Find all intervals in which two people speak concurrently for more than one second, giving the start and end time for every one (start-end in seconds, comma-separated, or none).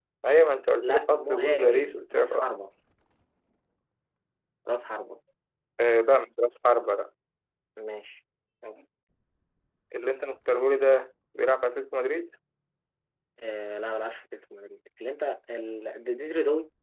0.8-2.4